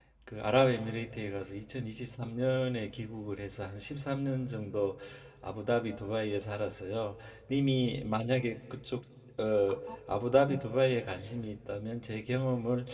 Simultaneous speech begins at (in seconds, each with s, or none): none